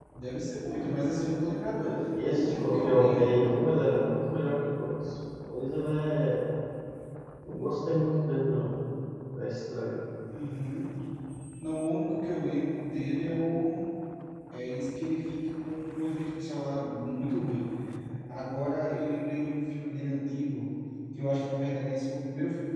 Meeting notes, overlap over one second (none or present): present